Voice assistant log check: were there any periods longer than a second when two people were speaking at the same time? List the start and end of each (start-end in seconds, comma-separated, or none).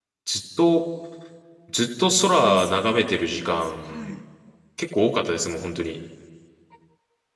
2.4-4.1